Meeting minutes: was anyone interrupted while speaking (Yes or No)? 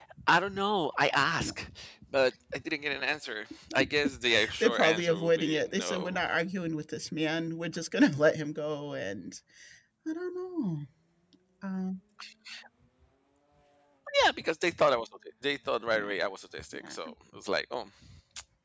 Yes